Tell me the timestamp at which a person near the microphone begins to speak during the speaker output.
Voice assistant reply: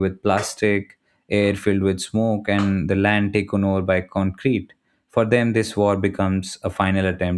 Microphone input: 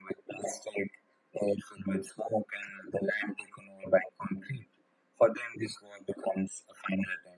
none

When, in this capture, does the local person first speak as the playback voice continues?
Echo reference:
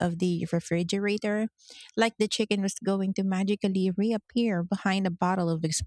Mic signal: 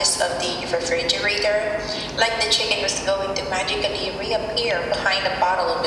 none

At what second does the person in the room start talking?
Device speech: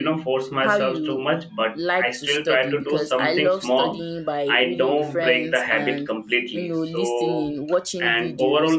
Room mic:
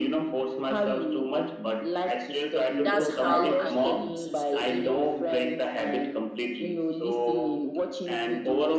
2.8 s

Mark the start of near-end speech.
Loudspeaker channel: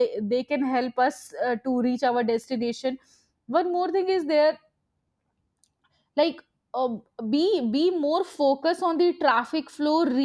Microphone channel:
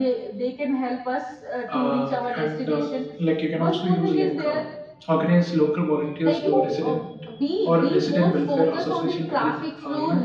1.7 s

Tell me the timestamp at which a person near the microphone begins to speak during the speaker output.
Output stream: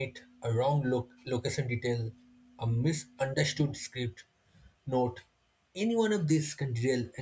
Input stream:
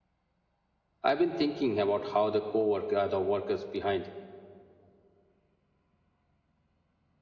1.0 s

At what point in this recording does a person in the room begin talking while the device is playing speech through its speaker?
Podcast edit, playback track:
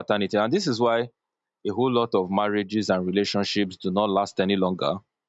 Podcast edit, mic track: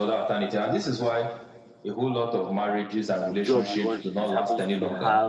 3.4 s

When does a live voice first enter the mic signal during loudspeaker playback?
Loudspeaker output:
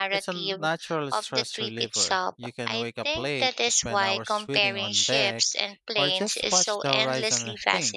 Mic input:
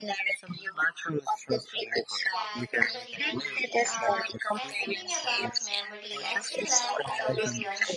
2.3 s

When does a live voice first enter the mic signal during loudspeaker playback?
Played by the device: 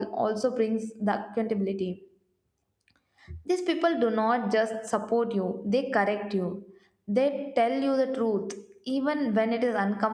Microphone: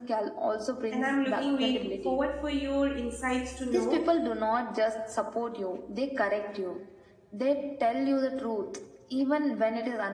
0.9 s

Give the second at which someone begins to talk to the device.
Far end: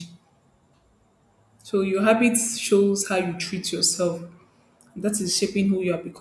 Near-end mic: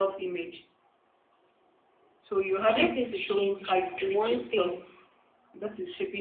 2.6 s

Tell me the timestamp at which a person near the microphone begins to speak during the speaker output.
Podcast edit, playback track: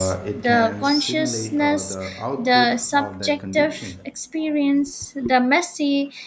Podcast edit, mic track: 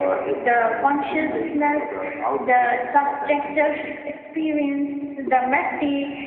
none

